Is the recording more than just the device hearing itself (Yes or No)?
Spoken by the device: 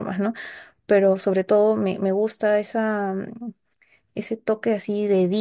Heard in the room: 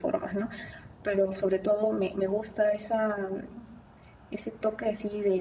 No